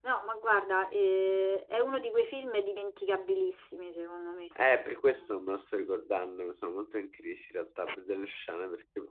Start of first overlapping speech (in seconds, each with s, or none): none